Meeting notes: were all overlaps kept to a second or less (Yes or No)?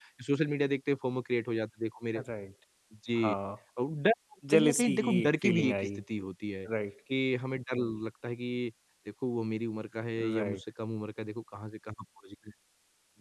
No